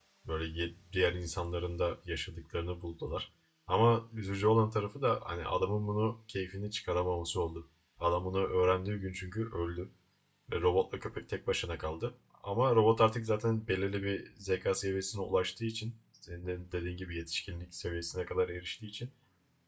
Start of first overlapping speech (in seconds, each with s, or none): none